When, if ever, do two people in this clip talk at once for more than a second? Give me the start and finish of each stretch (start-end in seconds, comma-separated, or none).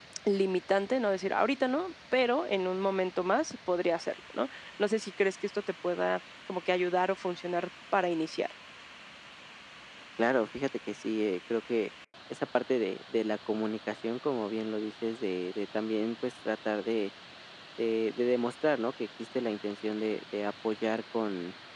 none